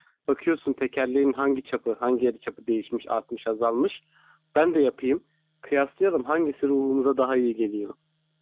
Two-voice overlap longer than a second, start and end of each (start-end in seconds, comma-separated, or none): none